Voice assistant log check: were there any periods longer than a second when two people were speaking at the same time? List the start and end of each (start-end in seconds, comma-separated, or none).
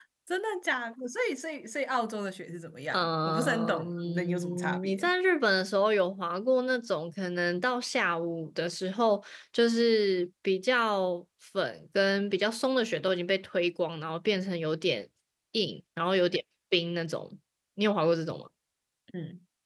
2.9-5.1